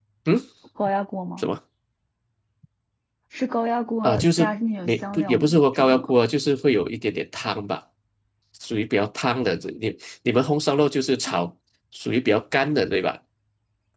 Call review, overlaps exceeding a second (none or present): present